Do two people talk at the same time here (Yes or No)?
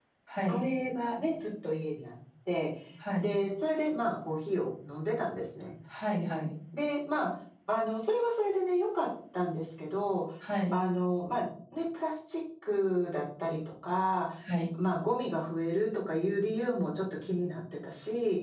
No